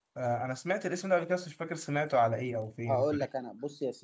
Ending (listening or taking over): taking over